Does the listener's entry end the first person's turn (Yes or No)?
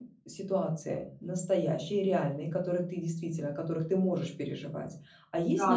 No